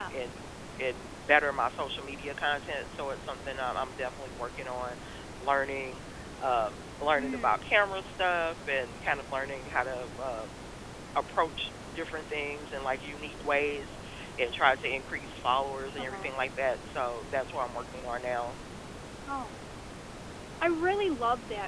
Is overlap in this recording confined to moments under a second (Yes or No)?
Yes